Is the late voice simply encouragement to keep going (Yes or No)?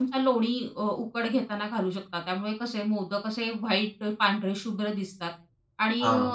Yes